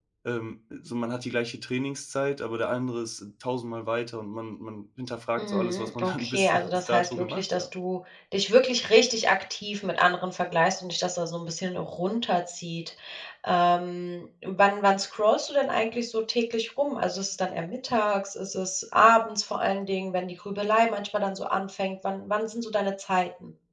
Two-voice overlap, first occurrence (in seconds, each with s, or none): 5.4 s